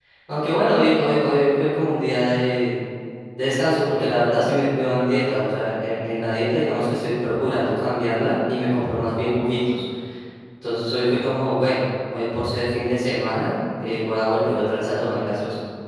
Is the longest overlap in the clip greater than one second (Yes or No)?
No